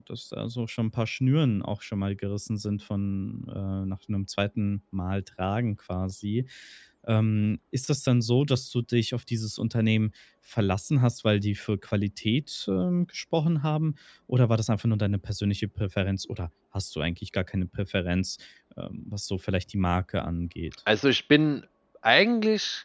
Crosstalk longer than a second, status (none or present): none